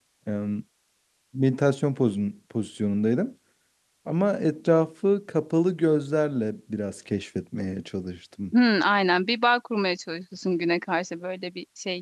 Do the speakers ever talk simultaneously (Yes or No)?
No